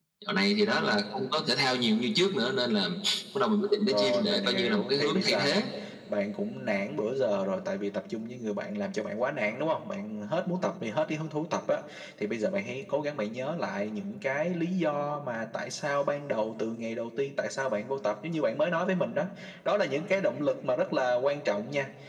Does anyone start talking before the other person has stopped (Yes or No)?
Yes